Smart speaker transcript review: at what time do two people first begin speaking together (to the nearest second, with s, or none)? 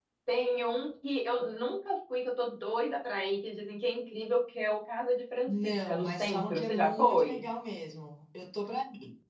5 s